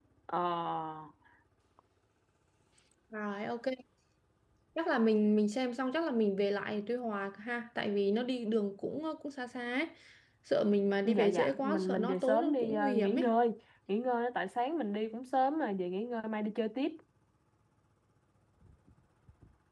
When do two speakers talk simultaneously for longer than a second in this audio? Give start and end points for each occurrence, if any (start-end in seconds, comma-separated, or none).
11.1-13.3